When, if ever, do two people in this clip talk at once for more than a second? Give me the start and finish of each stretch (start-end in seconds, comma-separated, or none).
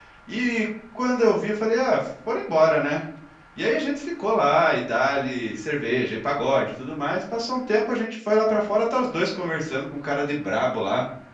none